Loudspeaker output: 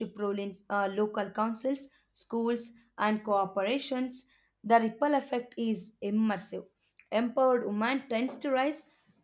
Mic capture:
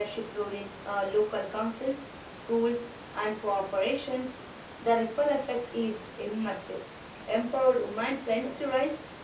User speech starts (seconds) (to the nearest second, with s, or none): none